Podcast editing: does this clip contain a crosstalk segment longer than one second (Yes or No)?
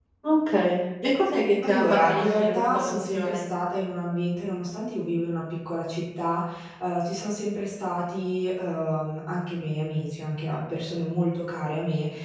Yes